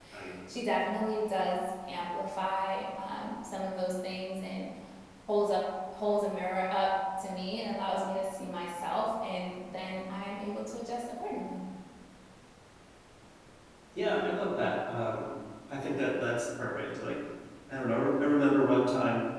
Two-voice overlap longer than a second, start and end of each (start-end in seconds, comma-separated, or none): none